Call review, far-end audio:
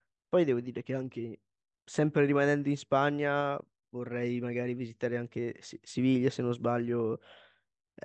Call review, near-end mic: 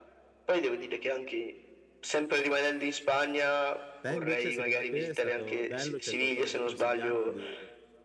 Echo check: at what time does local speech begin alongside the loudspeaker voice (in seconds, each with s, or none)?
4.0 s